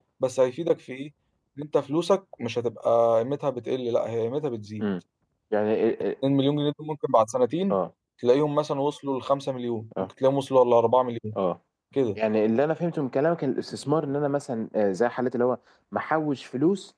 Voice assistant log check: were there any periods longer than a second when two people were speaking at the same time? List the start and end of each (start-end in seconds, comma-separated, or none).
none